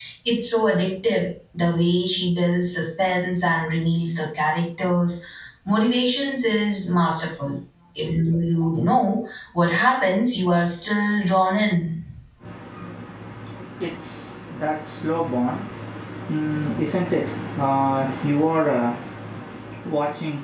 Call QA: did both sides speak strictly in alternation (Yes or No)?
Yes